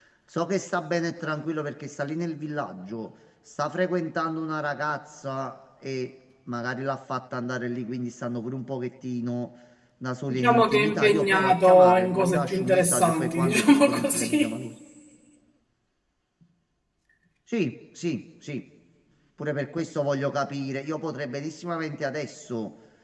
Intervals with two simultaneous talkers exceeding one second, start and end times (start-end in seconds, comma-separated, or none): 10.3-14.5